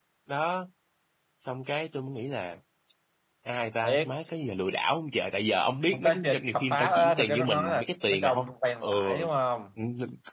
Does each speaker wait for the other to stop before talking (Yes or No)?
No